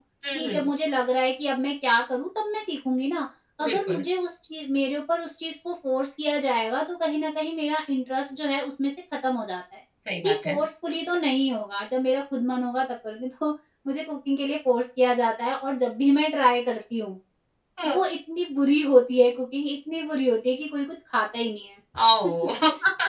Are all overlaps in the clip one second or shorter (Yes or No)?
Yes